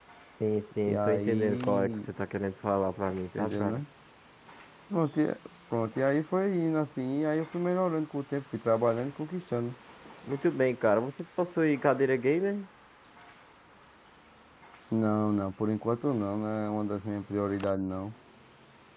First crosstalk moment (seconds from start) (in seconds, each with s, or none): 0.9 s